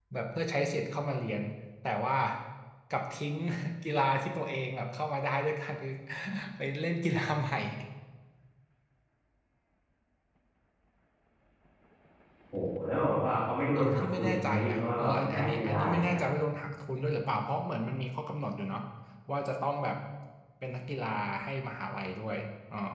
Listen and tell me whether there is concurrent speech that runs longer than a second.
Yes, from 13.7 s

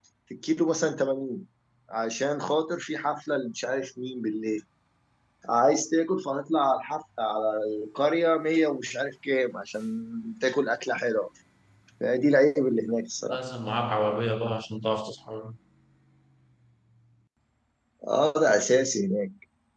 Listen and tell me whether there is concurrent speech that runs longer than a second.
No

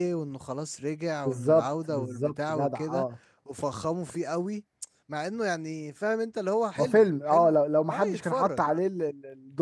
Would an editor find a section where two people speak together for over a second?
Yes, from 1.2 s

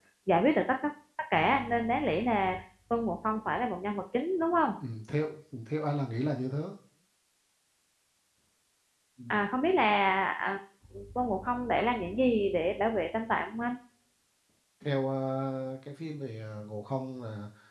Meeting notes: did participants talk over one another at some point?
No

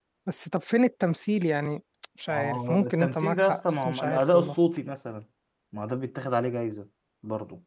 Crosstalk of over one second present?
Yes, from 2.3 s

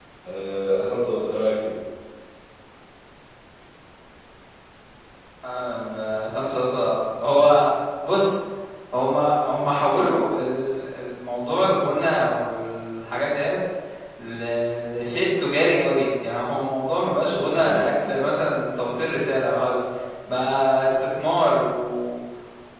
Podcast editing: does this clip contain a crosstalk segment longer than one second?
No

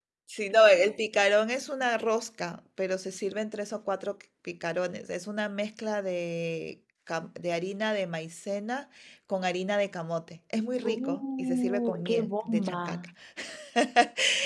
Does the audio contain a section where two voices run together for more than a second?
Yes, from 10.8 s

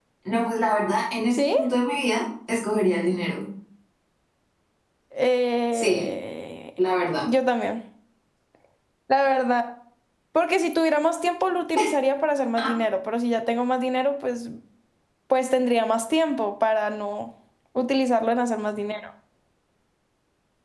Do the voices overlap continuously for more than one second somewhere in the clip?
No

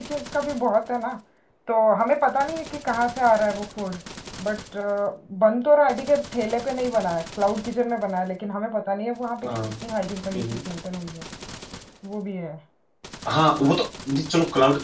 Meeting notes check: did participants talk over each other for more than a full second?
No

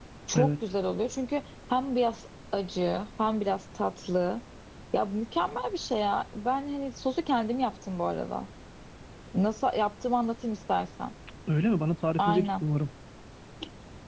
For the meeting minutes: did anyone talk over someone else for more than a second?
No

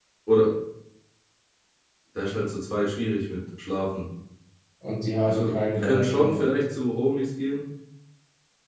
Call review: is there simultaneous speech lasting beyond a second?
Yes, from 5.2 s

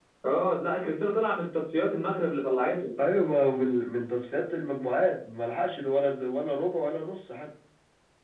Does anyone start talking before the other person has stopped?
No

